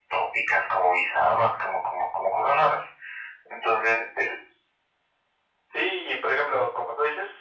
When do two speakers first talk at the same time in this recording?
none

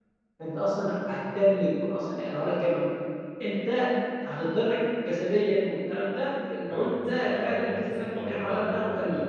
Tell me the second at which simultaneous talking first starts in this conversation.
6.7 s

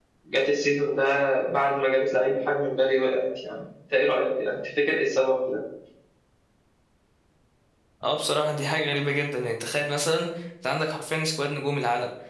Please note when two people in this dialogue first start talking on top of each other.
none

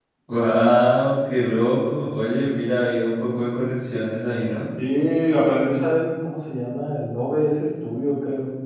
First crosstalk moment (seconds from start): none

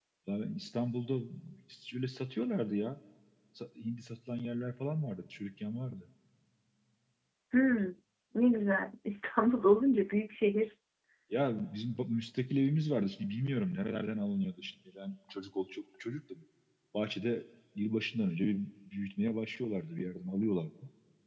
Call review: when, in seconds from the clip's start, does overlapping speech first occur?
none

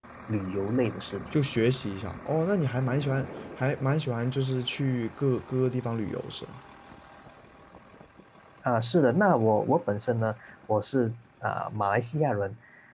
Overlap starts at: none

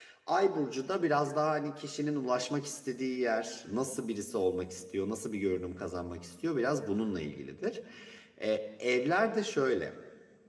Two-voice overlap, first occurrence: none

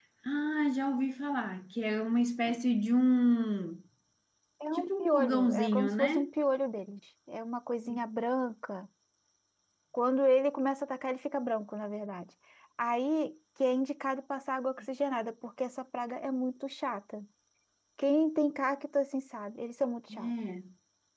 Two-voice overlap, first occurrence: 4.8 s

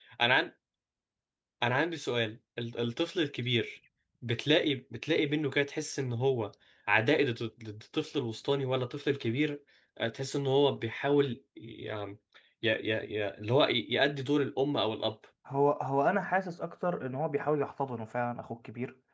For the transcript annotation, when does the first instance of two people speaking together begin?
none

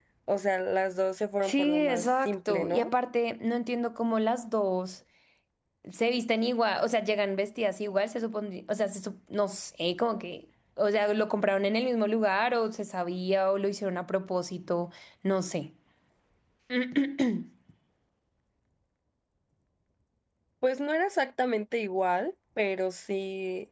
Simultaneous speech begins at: 1.4 s

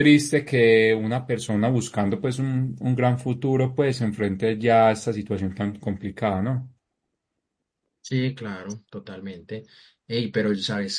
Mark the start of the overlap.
none

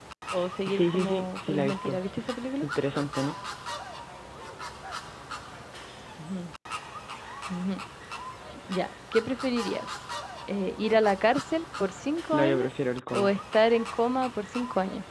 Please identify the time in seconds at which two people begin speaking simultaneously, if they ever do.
0.7 s

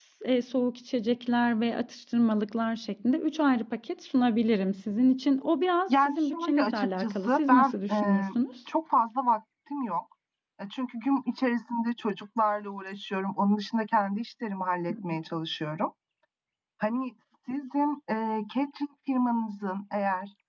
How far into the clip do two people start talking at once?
5.9 s

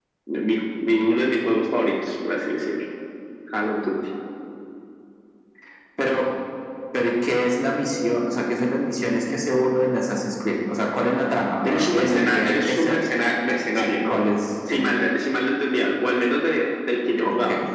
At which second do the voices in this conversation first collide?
11.6 s

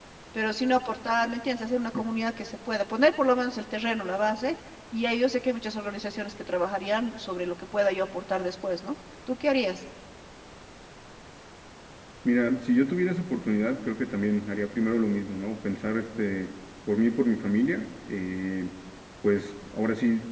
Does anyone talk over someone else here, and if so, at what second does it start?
none

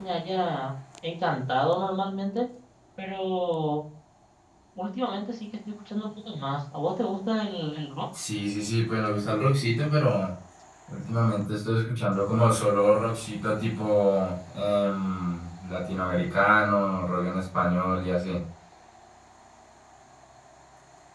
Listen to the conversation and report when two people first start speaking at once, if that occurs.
none

